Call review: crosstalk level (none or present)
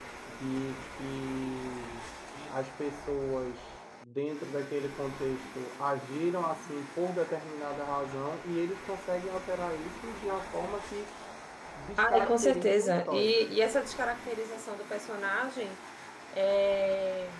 present